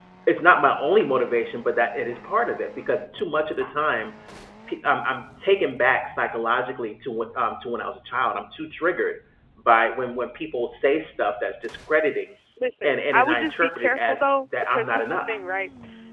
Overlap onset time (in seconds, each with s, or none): 12.8 s